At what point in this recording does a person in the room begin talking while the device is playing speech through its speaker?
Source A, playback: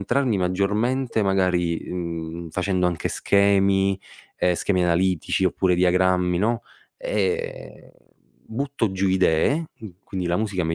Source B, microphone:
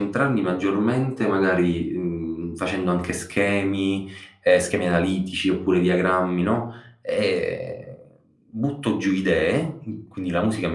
none

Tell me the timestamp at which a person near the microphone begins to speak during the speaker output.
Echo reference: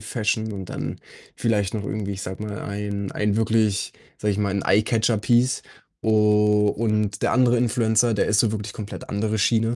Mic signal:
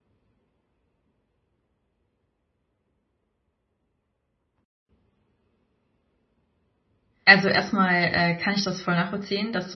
7.3 s

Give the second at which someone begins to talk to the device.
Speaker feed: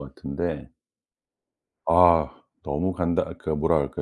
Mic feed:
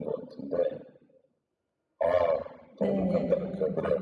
2.8 s

